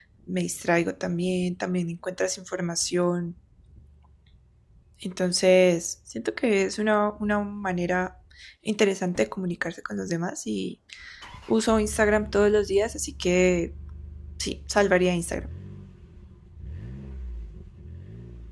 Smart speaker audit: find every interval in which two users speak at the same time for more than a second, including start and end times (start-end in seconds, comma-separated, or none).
none